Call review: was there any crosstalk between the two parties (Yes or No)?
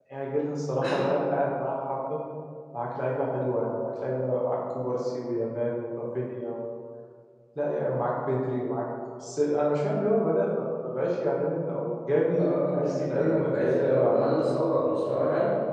Yes